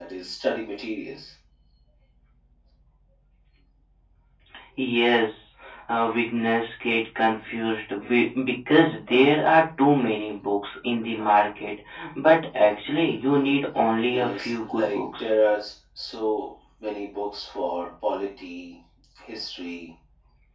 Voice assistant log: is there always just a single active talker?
No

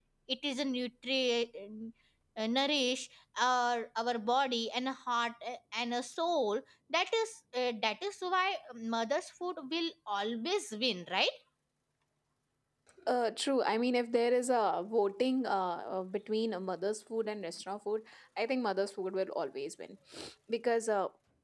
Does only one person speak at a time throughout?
Yes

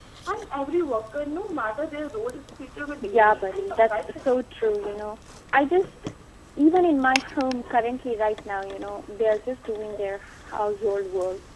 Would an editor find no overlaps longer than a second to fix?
No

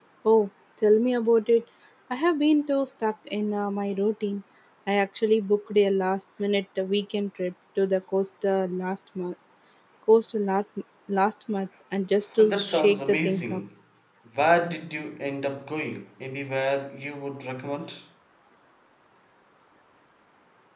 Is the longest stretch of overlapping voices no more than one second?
No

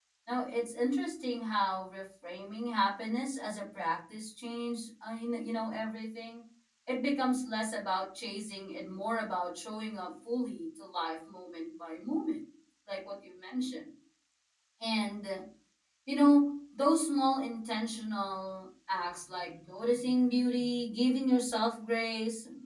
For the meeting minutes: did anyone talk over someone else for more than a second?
No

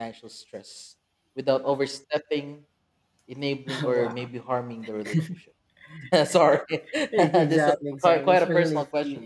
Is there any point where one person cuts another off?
Yes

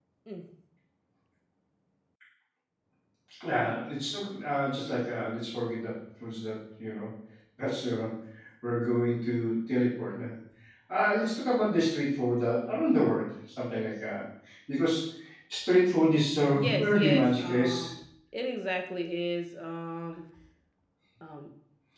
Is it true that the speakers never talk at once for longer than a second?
No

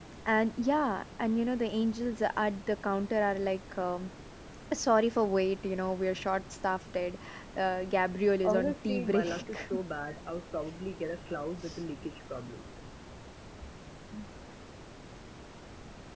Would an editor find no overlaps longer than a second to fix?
No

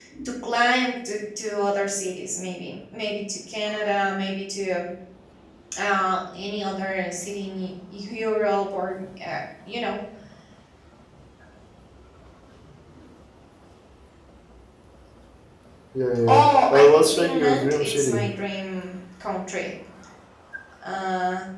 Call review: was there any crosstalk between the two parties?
Yes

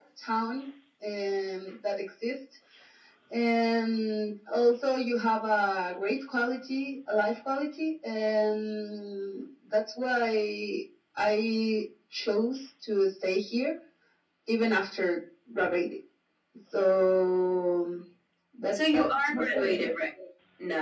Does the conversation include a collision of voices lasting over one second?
Yes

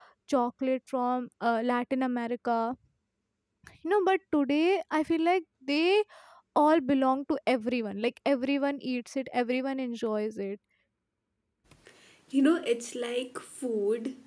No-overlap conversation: Yes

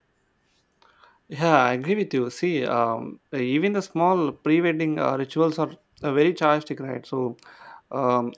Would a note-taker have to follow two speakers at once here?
No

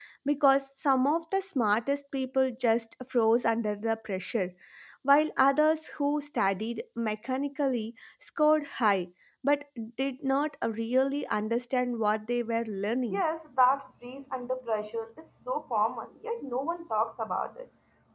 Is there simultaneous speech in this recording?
No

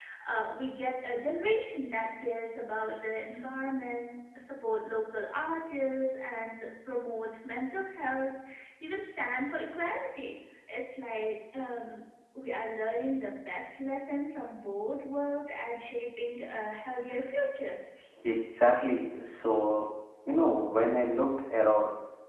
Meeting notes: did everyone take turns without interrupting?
Yes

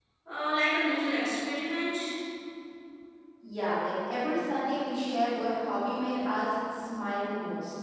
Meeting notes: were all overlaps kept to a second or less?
Yes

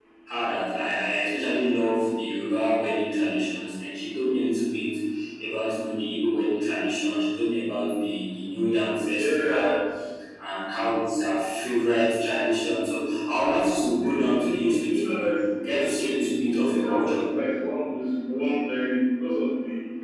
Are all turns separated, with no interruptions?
No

